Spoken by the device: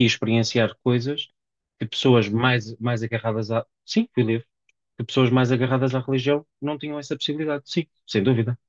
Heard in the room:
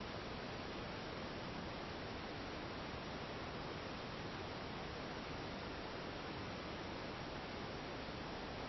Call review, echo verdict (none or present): none